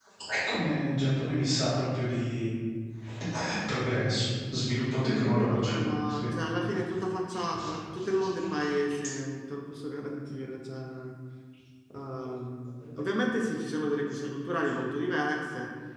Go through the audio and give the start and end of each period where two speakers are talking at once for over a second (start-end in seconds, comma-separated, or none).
5.0-6.3